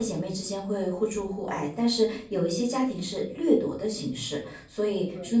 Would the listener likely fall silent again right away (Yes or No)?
Yes